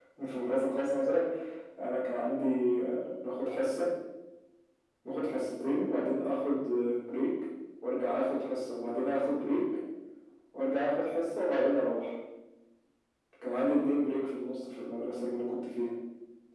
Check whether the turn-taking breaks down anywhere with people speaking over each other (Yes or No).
No